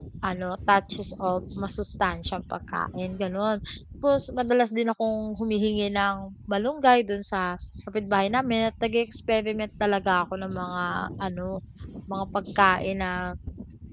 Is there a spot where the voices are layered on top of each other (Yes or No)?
No